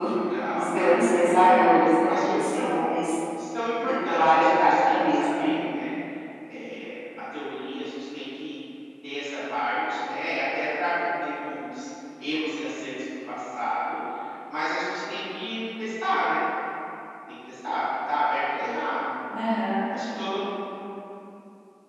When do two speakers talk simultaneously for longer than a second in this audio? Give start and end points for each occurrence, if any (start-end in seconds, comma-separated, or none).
1.4-3.0, 3.8-5.5